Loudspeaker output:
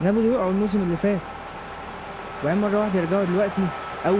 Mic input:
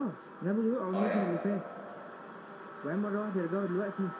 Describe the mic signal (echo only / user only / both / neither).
both